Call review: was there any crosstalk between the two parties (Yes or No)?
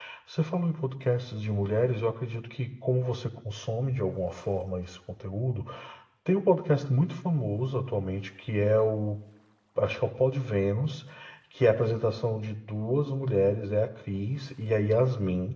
No